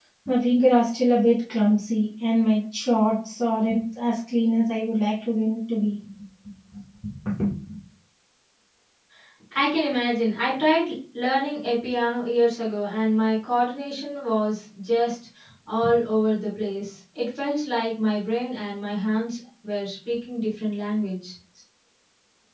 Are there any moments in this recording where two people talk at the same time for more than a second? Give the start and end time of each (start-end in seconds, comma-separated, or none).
none